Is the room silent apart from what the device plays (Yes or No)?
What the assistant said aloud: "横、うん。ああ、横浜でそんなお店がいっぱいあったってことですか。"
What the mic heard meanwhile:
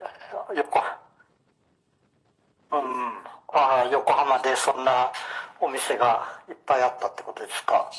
Yes